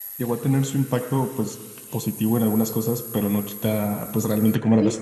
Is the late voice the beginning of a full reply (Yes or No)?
Yes